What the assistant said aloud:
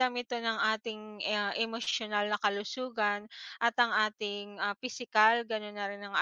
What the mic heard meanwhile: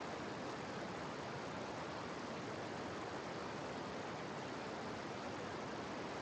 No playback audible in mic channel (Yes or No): Yes